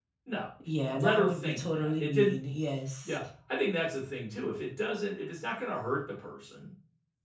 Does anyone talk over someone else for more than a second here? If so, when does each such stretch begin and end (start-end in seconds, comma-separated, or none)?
0.9-2.3